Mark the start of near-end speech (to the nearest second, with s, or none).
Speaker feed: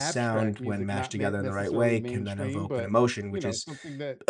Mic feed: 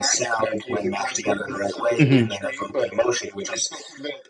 2 s